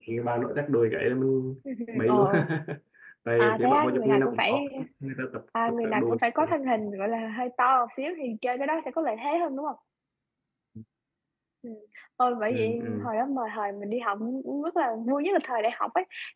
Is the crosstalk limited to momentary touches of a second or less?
No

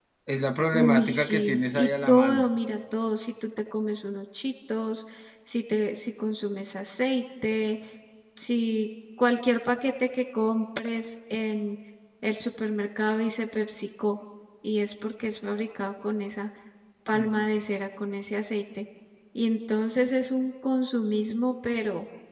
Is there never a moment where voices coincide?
No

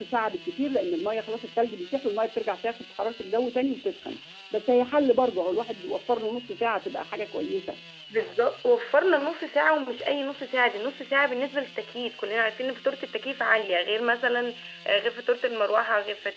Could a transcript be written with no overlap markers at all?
Yes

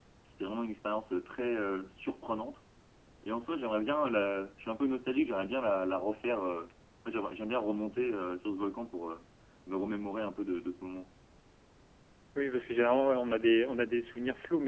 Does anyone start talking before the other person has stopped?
No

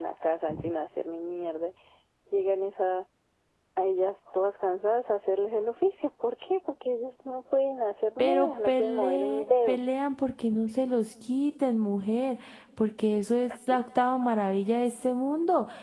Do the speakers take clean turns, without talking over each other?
No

